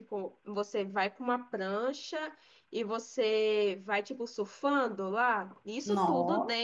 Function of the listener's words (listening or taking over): listening